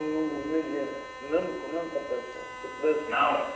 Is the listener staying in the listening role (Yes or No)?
Yes